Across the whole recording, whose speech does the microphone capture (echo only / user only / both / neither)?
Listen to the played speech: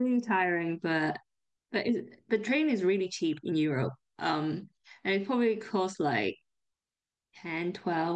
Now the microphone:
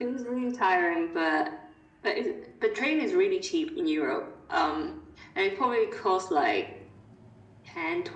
echo only